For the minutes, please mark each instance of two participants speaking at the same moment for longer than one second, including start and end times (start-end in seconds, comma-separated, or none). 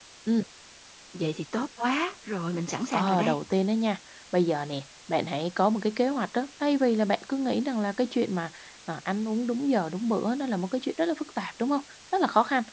none